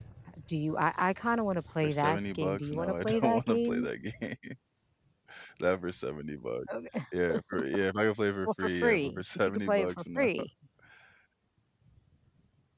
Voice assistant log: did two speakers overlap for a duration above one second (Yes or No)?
Yes